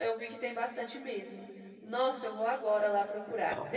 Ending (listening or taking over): listening